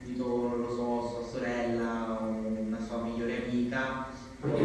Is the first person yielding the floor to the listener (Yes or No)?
No